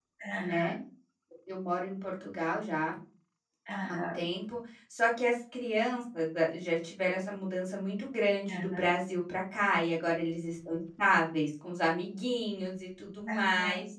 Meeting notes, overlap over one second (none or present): none